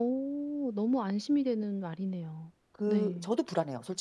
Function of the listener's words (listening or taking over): taking over